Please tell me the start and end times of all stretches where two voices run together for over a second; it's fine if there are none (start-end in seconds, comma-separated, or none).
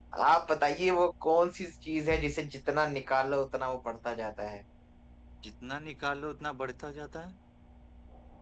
none